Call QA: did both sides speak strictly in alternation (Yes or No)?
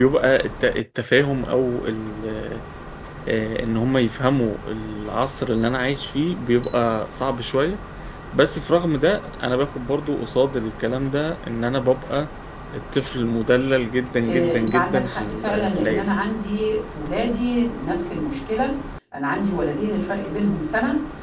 No